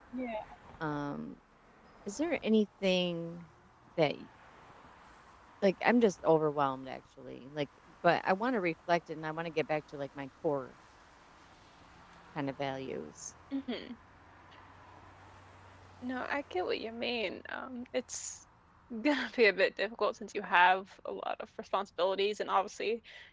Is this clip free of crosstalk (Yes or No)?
Yes